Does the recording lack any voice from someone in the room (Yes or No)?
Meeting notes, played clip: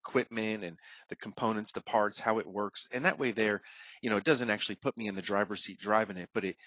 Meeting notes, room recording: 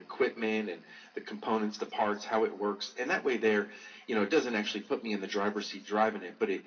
Yes